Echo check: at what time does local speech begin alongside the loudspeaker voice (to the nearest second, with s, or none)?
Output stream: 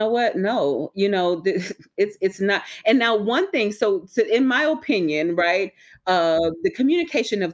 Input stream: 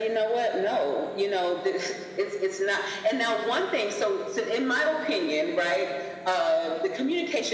none